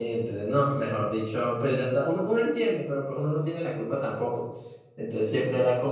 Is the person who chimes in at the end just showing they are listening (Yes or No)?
Yes